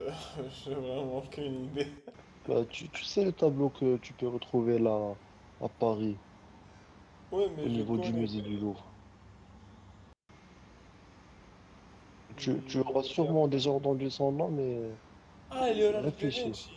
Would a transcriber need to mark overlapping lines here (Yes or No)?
Yes